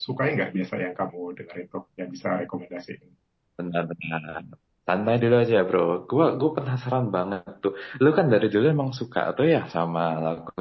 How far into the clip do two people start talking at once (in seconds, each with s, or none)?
none